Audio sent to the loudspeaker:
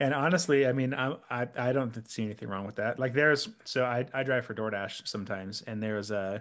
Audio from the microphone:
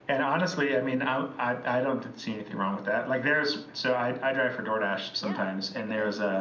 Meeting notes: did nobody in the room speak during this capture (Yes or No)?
No